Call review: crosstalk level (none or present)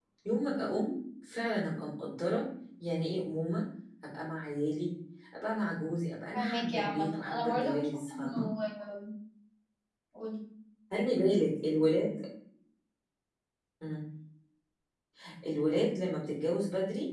present